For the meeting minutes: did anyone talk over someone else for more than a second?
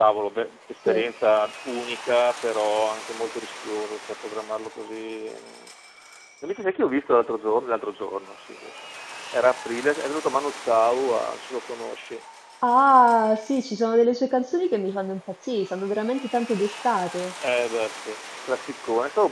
No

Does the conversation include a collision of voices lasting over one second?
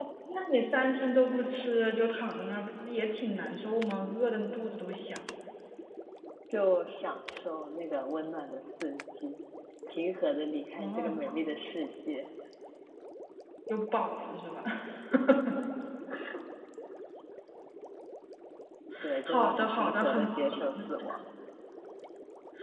Yes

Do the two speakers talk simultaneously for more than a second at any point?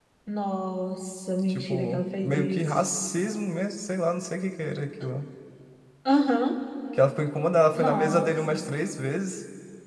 Yes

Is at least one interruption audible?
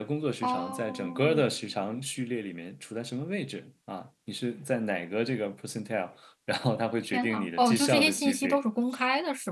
Yes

